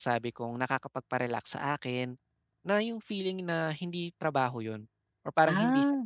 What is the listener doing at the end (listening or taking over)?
listening